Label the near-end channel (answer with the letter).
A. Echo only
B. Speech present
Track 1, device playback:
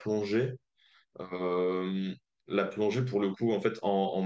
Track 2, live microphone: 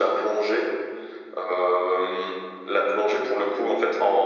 A